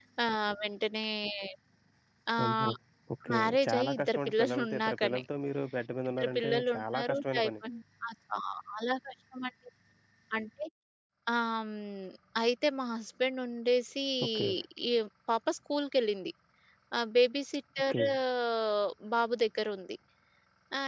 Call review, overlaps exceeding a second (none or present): present